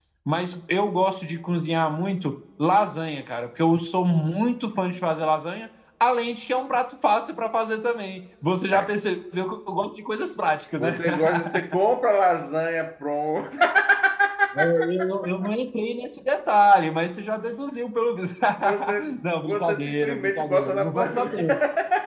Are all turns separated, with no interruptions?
No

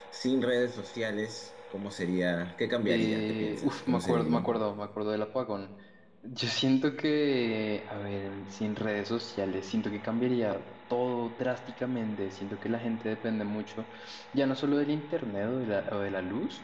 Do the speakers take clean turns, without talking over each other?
No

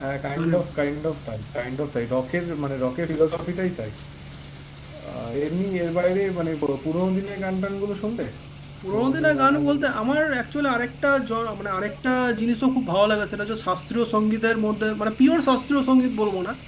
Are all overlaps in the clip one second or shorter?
No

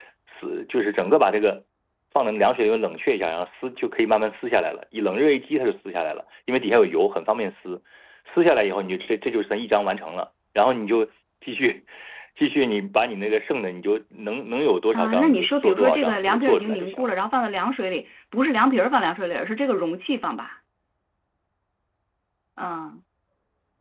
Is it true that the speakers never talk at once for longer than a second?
No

